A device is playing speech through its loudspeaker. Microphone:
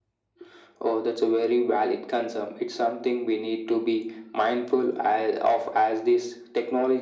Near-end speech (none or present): none